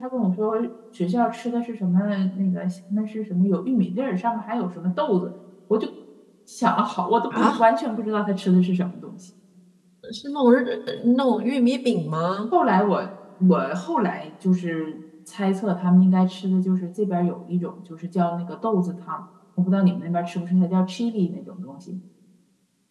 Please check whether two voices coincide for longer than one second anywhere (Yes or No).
No